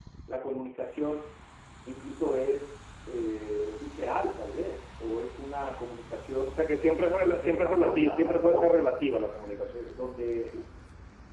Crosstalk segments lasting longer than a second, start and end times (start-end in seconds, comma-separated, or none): 7.1-8.8